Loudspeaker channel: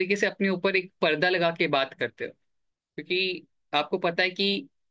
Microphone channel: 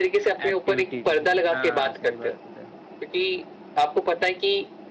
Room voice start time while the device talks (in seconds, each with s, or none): 0.5 s